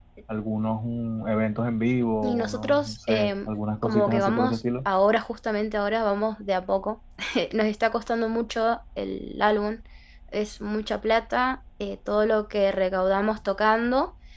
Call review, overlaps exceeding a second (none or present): present